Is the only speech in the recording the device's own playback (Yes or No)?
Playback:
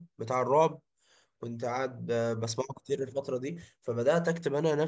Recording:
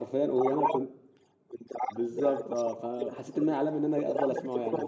No